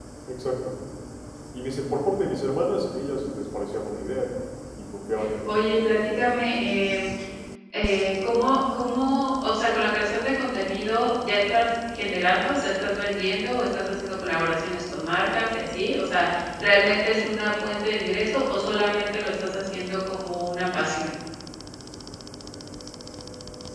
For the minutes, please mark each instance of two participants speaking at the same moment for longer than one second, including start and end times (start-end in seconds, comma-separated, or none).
5.4-6.8